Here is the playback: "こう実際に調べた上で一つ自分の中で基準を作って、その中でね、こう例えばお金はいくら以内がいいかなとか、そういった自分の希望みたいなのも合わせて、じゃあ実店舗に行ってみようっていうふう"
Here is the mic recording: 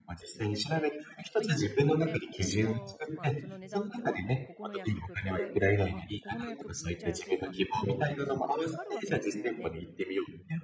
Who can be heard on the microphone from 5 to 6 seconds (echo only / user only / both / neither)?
both